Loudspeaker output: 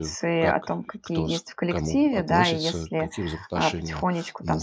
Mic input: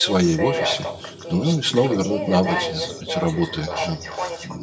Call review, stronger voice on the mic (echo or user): user